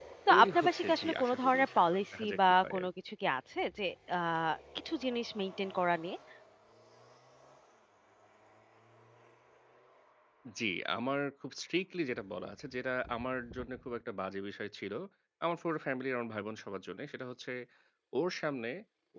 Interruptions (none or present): present